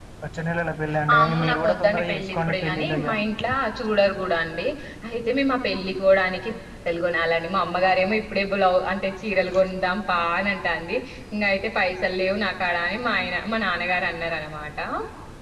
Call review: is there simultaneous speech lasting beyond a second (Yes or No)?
Yes